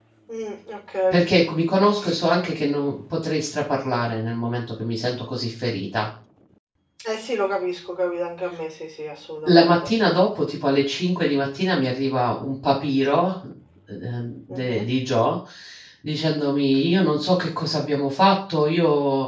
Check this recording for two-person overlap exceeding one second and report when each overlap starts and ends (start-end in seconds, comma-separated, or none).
none